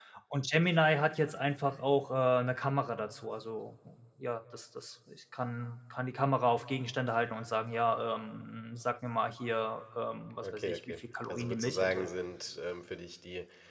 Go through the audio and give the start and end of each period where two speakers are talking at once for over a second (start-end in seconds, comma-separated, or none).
10.4-12.1